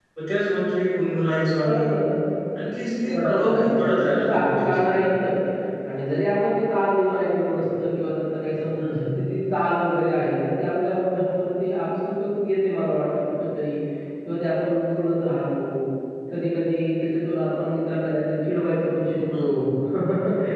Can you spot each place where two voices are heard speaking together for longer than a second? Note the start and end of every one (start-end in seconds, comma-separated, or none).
3.1-4.8